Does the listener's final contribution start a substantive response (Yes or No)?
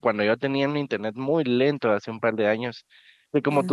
No